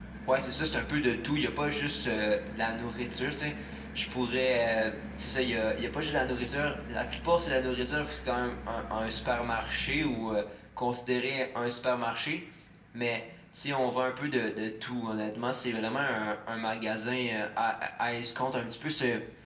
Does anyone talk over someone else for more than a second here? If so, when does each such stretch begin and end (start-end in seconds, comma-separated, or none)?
none